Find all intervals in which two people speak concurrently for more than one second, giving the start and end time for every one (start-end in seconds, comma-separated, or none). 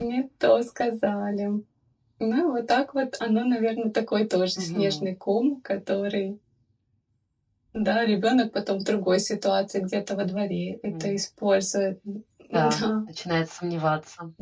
none